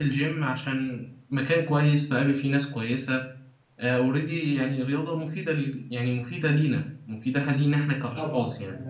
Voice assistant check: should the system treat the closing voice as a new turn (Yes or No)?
Yes